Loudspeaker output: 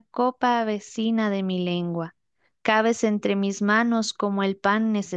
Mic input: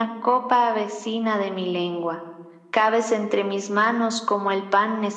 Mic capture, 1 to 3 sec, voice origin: echo only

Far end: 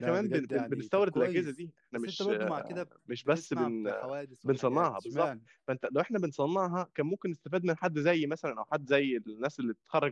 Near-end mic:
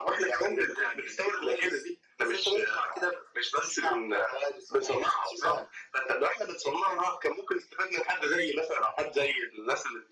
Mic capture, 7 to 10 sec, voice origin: echo only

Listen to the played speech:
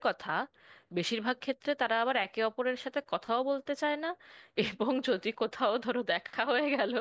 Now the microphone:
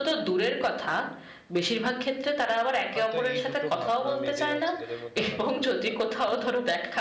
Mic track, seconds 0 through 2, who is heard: echo only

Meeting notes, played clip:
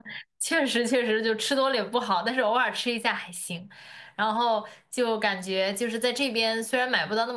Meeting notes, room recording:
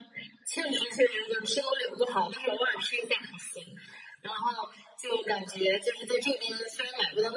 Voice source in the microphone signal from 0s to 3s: echo only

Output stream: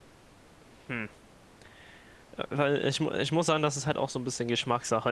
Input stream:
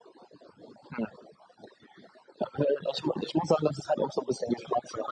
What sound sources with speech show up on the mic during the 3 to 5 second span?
echo only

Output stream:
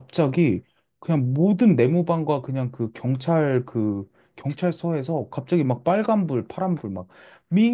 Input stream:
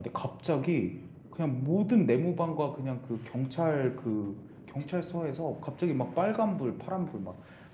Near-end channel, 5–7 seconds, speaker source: echo only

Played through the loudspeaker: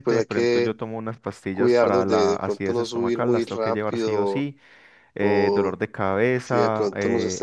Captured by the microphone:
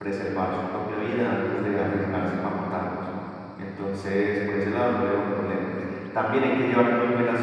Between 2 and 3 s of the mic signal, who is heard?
user only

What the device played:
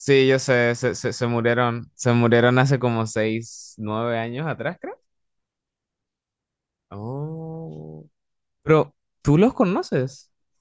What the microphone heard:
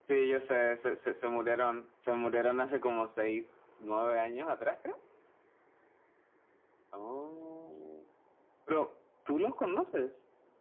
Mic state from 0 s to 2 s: echo only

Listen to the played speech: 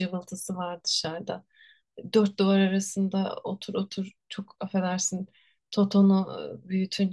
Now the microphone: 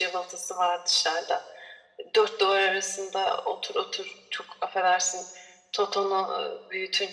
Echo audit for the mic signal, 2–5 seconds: echo only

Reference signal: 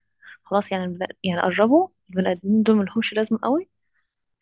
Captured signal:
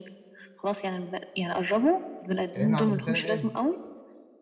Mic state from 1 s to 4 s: both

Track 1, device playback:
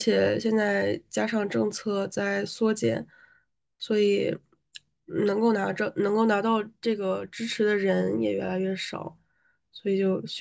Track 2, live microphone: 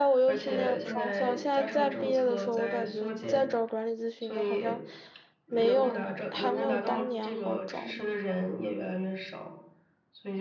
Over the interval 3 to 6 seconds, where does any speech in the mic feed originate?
both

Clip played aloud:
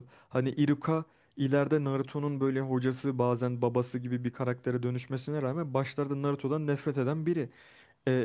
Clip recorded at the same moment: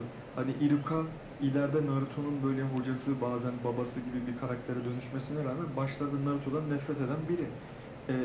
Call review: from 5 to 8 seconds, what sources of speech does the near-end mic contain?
echo only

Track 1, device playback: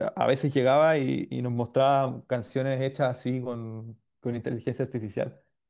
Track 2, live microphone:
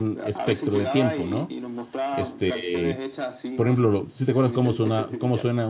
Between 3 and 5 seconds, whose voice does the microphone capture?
both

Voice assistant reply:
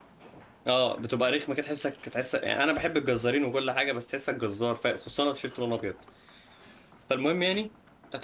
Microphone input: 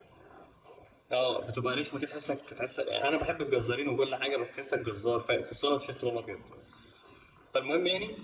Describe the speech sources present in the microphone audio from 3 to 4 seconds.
echo only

